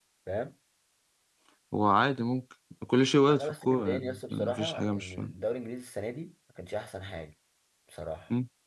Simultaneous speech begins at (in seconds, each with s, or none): 3.3 s